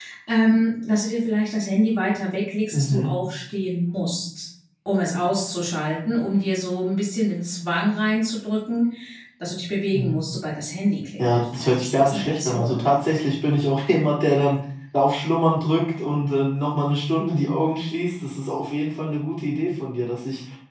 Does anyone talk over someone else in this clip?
Yes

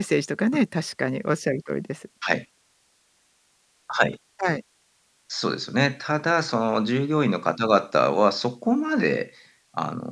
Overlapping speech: No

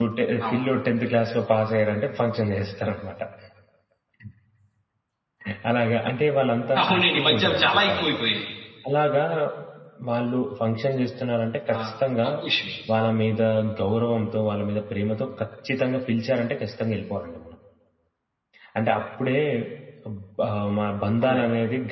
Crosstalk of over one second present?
Yes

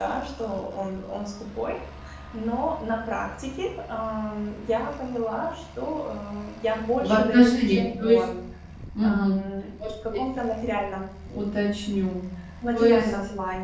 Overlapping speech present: Yes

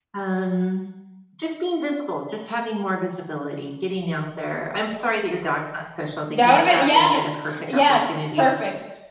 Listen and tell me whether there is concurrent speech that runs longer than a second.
Yes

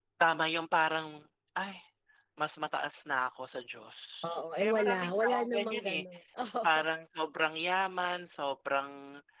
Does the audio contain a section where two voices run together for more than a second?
Yes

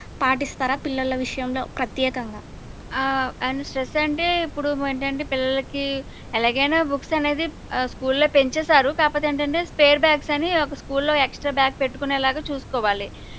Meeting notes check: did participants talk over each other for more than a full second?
No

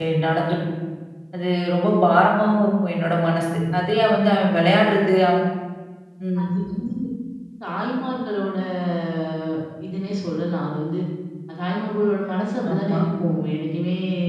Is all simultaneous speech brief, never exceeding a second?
Yes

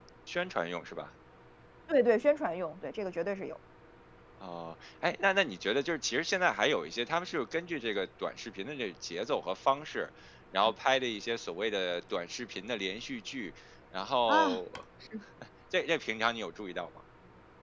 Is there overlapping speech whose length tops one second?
No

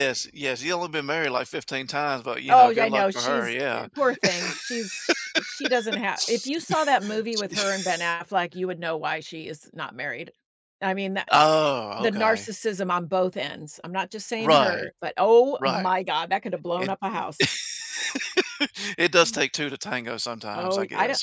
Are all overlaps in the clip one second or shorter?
No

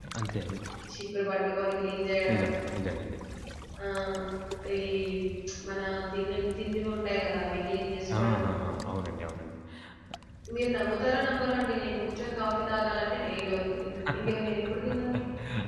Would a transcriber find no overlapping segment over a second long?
Yes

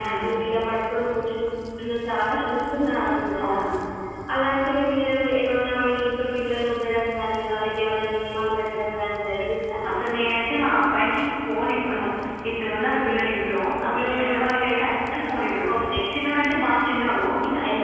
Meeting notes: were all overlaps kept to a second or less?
Yes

